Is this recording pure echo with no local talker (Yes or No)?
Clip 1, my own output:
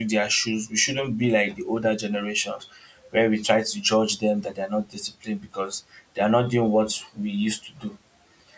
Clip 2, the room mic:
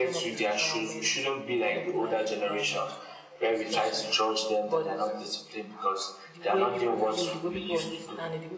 No